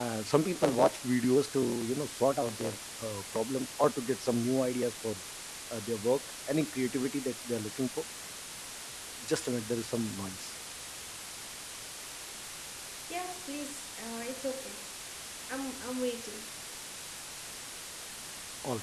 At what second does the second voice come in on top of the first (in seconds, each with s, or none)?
none